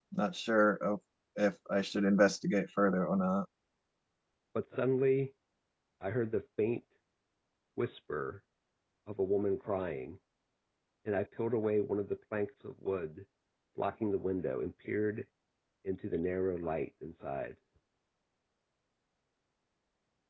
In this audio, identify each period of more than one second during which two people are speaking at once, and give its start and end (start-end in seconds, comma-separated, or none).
none